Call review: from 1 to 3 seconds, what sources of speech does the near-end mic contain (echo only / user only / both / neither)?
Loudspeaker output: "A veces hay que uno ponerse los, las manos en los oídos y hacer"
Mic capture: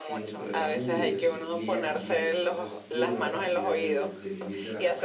both